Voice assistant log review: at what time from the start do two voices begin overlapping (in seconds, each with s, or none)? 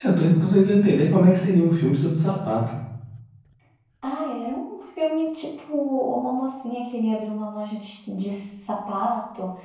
none